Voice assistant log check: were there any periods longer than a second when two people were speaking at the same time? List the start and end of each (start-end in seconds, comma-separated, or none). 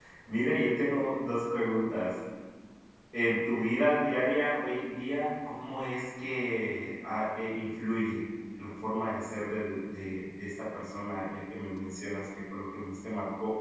none